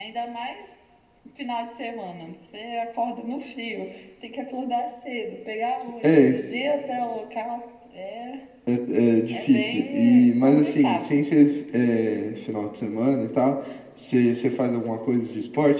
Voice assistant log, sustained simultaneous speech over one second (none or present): present